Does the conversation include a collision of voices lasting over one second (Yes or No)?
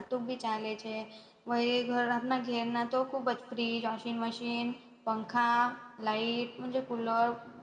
No